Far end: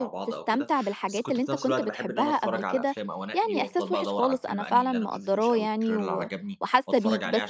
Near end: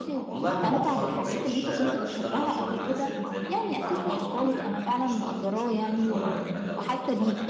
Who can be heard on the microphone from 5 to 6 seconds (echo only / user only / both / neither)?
both